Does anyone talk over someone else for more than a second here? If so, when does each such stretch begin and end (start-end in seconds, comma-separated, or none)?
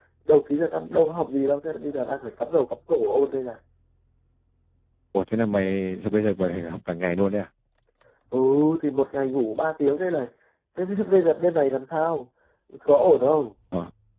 none